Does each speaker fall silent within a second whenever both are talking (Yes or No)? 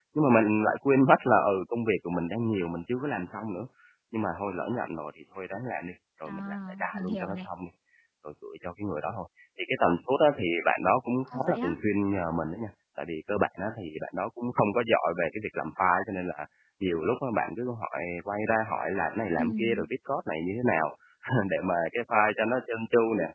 No